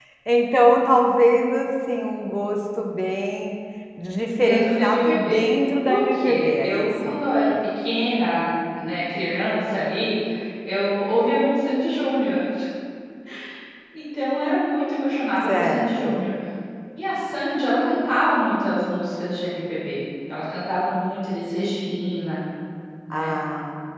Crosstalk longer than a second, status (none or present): present